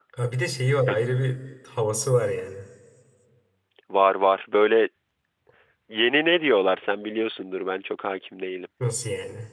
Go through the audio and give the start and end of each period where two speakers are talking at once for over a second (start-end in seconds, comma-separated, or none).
none